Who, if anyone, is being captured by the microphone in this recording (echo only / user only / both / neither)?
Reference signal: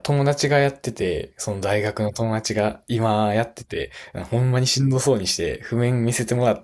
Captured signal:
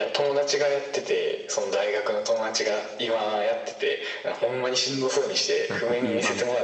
both